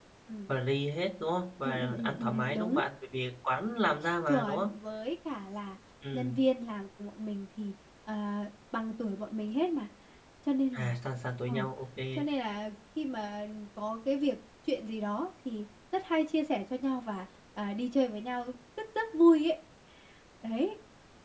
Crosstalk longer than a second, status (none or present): present